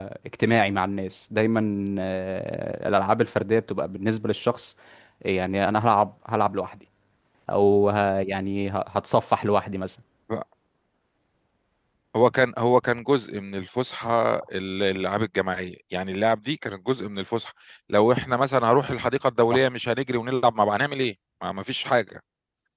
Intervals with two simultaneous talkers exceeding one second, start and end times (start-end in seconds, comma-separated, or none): none